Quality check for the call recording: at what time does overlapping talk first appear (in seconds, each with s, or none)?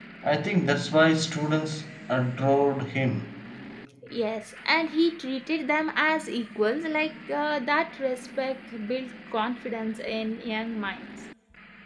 none